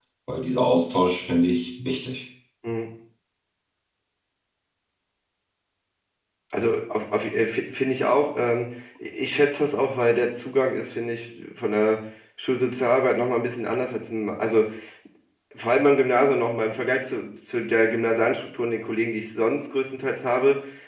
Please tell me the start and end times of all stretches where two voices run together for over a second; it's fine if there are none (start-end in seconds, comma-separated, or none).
none